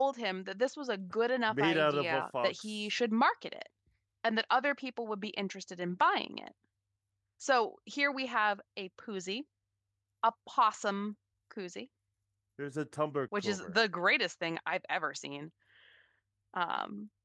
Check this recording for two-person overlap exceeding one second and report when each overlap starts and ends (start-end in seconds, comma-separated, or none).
1.5-2.8